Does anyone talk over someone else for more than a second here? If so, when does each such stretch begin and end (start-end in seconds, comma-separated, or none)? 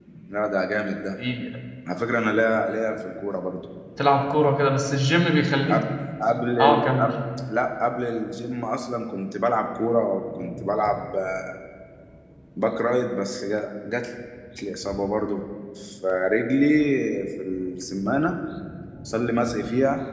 none